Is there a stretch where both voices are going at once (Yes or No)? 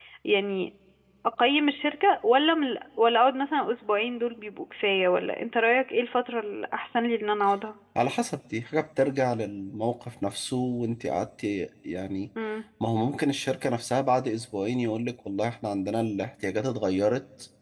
No